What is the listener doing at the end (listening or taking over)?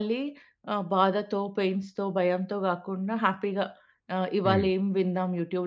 listening